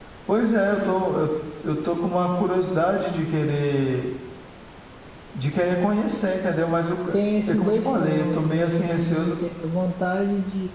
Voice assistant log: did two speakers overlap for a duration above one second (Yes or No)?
Yes